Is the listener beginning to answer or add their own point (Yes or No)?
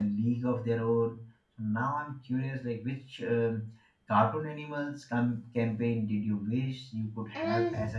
Yes